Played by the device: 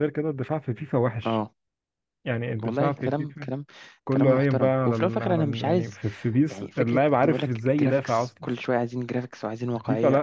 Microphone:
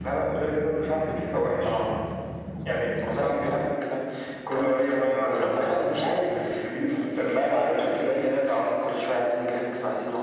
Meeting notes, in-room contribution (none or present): none